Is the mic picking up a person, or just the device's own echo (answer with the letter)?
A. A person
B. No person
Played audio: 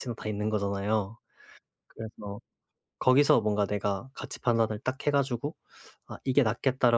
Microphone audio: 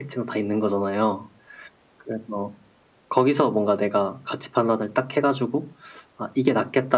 B